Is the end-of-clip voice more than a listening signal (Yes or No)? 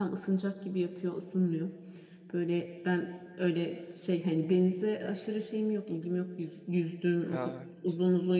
No